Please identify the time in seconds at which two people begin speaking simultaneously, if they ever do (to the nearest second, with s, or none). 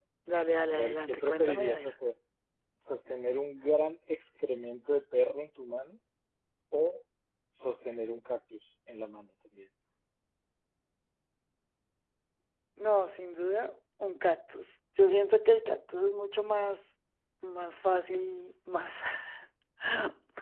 1 s